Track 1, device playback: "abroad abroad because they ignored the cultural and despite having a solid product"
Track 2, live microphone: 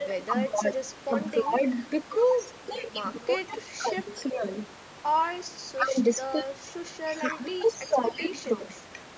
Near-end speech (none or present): present